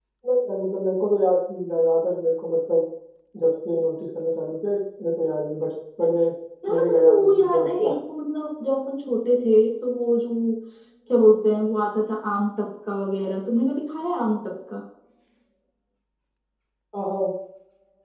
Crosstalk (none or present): present